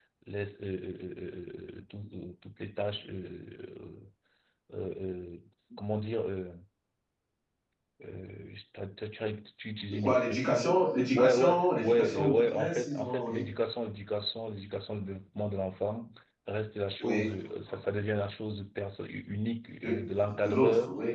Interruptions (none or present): present